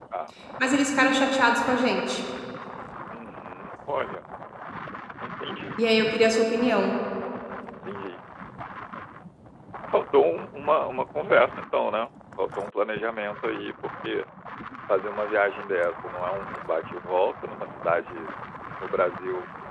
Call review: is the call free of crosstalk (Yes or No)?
Yes